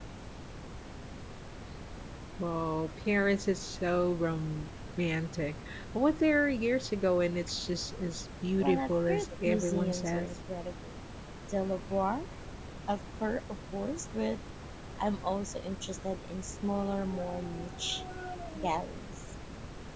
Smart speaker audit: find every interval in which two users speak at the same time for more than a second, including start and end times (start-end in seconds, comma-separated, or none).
8.6-10.3